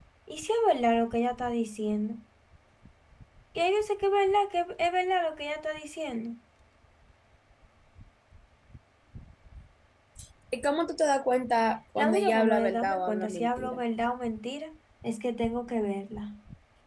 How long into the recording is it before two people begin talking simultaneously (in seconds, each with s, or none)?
12.0 s